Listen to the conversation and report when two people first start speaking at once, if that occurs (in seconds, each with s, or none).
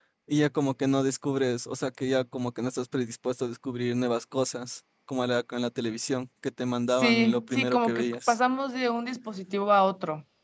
6.9 s